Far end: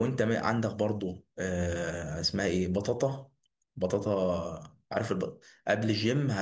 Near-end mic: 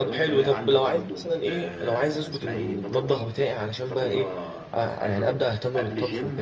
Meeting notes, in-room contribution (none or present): present